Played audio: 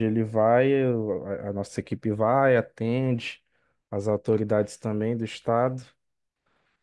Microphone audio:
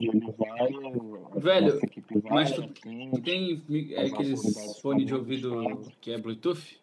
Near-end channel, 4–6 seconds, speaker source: both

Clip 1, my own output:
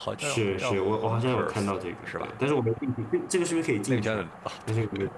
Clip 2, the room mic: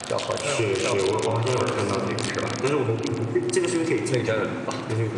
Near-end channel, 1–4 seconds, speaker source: echo only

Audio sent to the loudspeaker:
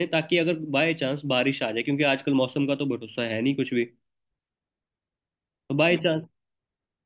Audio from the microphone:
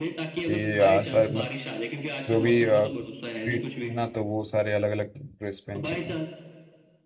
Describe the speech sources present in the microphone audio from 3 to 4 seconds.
both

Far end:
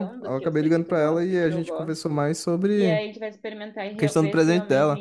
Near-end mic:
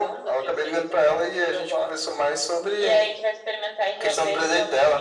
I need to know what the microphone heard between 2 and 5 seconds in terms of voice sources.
echo only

